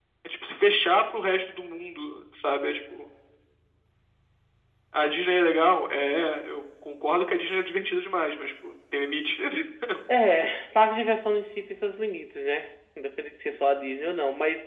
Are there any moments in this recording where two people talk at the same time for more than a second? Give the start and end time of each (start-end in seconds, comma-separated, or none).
none